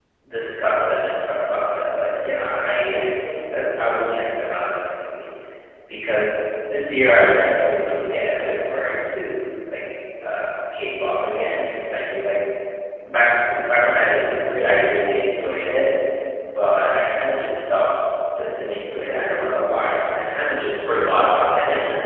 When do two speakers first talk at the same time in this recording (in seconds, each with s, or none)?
none